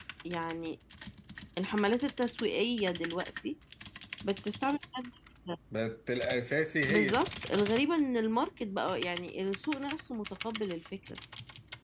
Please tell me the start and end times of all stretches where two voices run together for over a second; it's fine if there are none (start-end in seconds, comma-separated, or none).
none